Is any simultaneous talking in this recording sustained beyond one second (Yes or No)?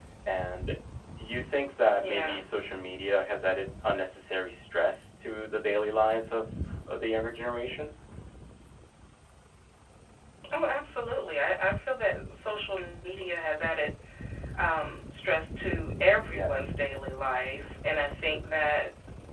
No